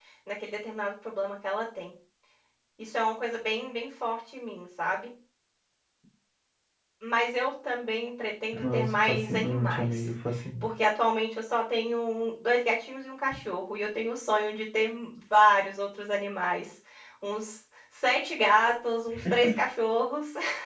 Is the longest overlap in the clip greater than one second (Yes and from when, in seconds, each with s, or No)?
Yes, from 8.6 s